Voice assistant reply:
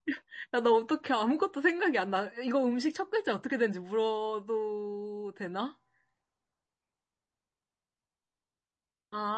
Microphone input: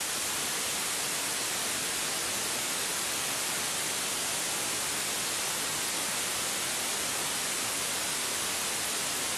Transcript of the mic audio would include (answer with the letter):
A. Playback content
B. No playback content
B